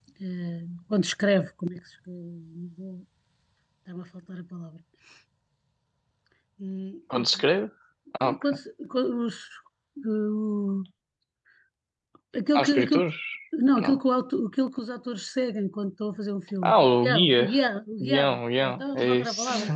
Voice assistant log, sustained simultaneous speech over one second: present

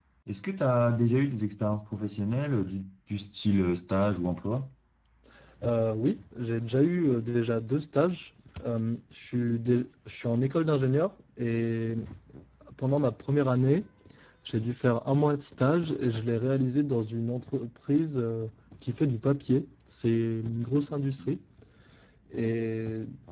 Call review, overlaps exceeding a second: none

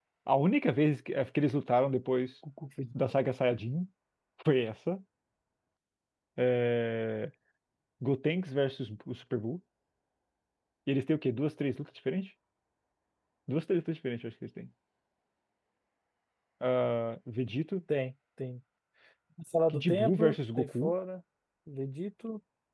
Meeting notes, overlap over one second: present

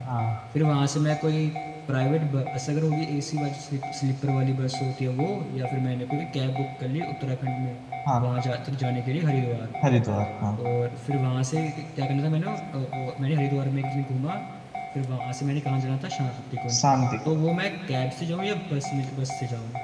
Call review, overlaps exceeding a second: none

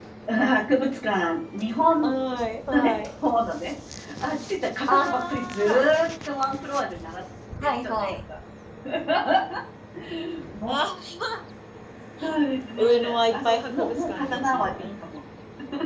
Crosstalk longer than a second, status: present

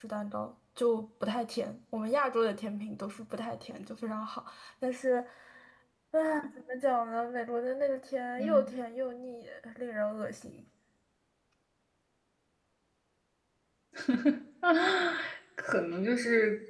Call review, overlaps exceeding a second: none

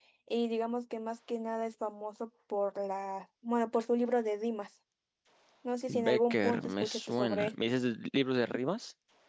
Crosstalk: present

